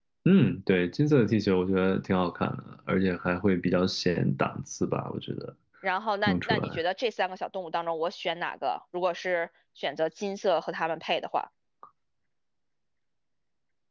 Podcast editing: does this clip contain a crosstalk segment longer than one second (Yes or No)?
No